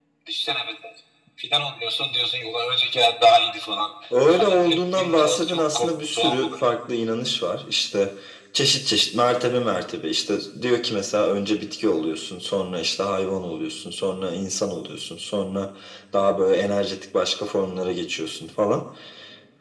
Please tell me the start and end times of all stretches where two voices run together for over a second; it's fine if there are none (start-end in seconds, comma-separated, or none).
4.3-6.7